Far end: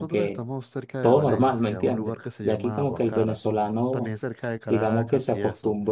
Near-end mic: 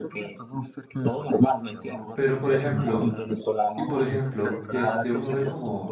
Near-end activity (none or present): present